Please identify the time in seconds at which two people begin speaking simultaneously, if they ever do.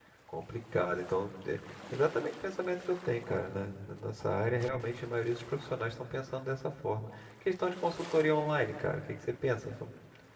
none

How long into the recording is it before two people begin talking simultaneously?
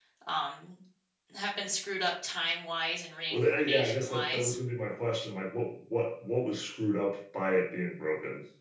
3.3 s

